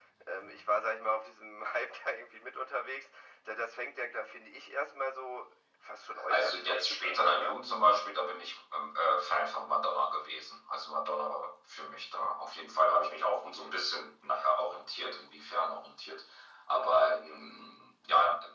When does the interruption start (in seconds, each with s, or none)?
6.2 s